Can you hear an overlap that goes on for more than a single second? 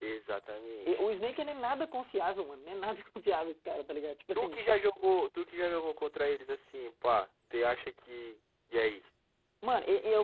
No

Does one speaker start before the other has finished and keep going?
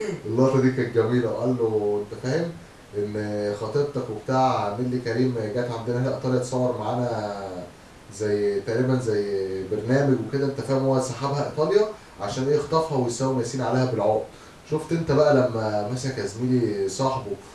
No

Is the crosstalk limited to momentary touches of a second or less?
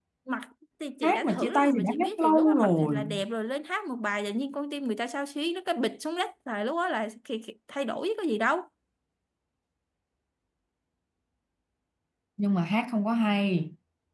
No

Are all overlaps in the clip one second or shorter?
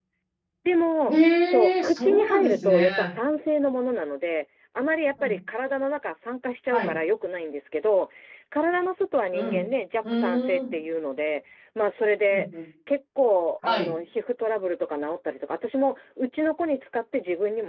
No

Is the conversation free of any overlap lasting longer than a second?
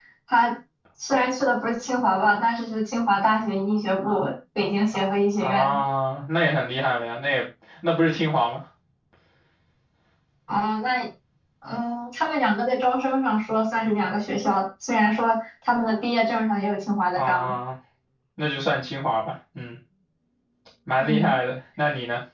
Yes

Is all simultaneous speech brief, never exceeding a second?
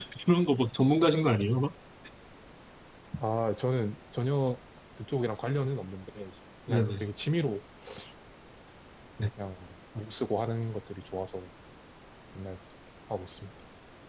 Yes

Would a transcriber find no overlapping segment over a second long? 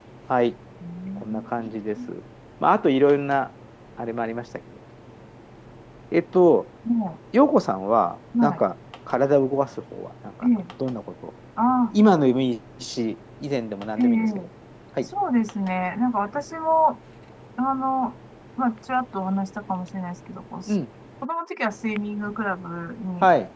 Yes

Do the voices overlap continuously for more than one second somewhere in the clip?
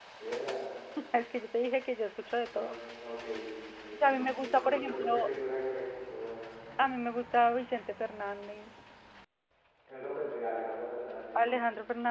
Yes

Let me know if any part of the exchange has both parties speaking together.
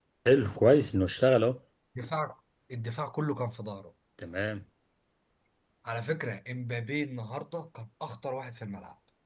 No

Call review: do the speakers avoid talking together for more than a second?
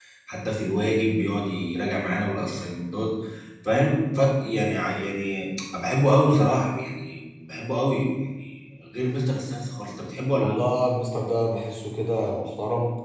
Yes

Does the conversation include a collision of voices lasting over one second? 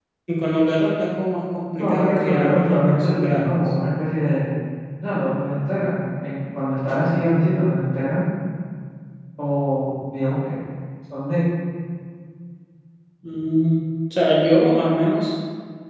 Yes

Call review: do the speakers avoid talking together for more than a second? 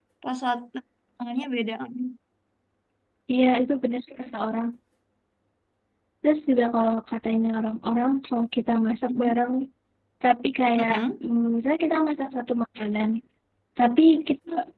Yes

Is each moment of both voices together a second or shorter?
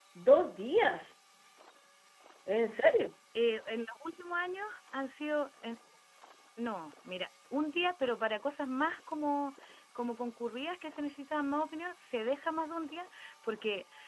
Yes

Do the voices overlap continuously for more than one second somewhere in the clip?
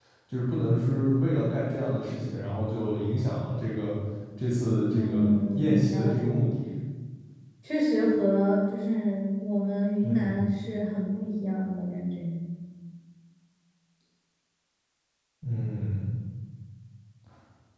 Yes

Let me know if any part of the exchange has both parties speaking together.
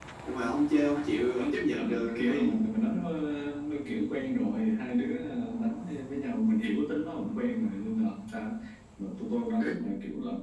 Yes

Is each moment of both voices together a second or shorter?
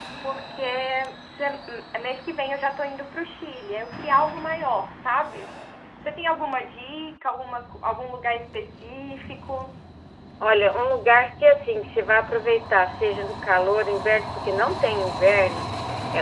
Yes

